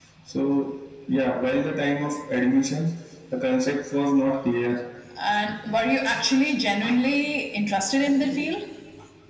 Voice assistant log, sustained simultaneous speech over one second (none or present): none